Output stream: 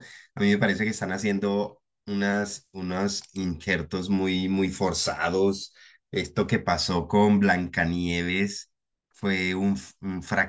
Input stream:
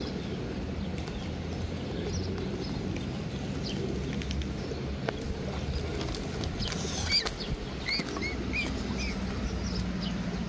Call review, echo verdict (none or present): none